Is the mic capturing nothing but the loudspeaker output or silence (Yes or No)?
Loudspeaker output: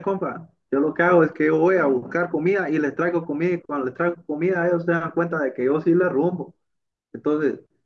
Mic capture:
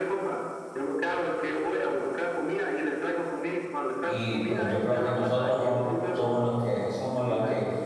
No